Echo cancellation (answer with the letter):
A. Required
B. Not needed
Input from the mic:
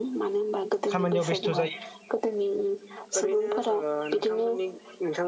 A